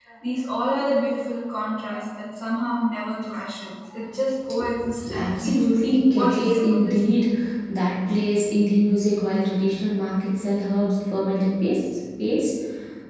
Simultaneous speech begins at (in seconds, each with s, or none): 5.1 s